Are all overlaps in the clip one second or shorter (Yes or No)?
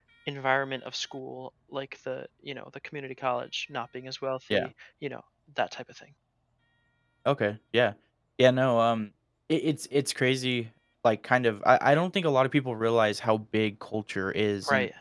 Yes